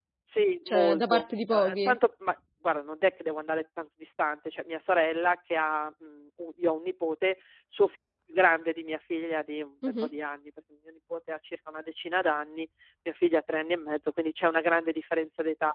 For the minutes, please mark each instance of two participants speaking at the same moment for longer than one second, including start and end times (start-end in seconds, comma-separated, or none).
0.7-2.0